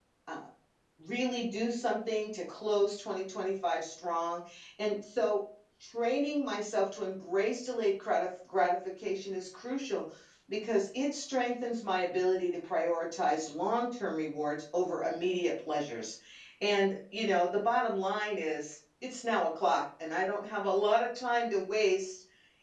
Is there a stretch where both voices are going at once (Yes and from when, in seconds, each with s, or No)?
No